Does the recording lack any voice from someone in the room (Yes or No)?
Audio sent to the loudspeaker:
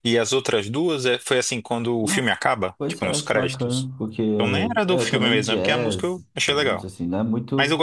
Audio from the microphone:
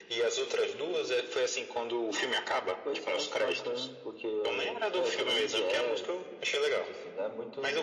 Yes